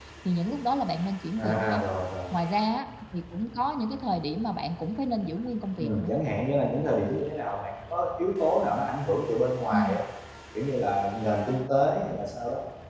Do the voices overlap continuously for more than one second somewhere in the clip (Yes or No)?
No